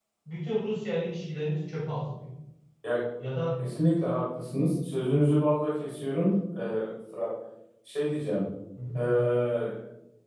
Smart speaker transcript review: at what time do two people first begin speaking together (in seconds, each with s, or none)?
none